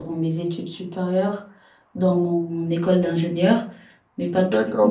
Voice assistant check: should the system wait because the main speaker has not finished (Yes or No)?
No